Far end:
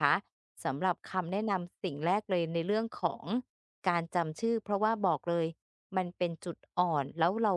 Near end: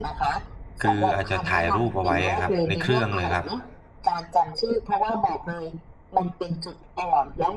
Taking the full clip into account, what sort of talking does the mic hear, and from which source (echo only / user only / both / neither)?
both